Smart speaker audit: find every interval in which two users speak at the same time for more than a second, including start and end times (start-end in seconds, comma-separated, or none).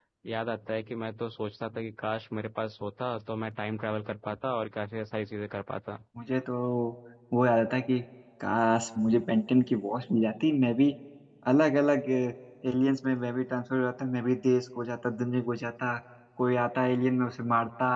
none